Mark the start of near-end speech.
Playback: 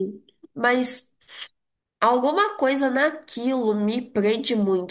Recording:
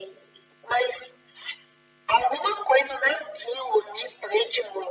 none

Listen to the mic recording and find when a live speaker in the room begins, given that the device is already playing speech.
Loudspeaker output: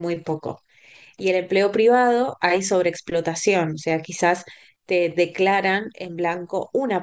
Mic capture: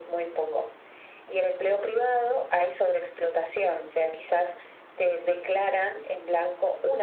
none

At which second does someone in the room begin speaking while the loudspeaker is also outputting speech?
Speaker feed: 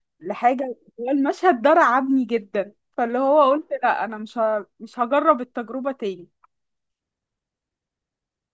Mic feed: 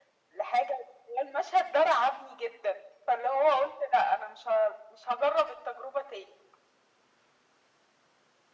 none

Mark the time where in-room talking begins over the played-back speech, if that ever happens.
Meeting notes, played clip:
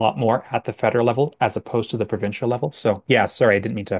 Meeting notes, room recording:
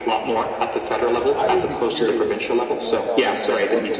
1.3 s

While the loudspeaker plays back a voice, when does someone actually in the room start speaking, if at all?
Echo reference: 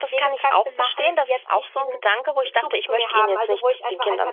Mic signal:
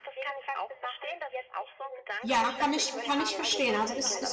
2.2 s

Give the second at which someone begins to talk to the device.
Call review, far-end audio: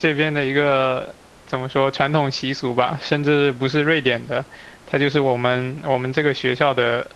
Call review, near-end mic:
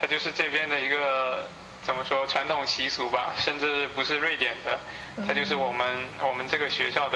5.2 s

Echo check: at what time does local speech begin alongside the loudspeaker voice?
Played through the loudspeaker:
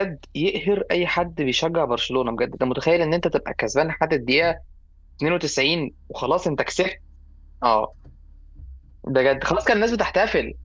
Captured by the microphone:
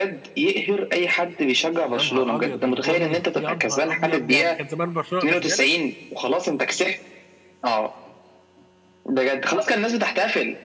1.9 s

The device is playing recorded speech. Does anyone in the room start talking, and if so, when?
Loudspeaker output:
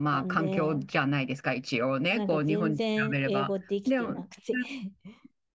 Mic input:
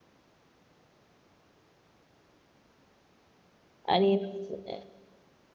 3.8 s

